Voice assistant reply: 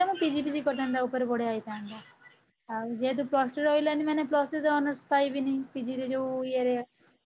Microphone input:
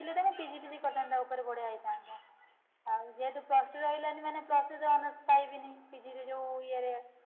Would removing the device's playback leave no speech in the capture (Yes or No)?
Yes